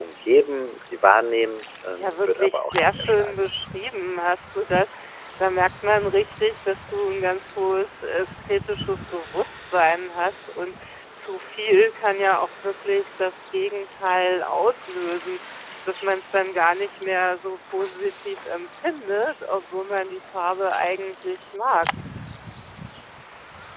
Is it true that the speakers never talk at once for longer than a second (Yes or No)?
No